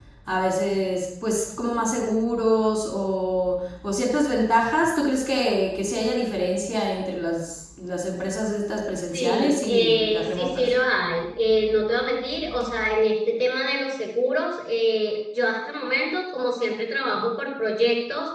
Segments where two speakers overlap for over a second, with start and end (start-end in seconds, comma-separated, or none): 9.1-10.6